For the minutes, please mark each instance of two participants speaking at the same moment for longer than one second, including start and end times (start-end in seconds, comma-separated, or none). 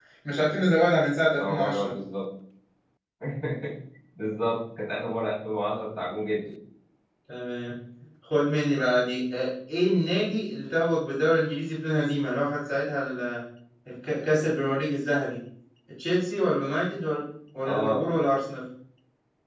none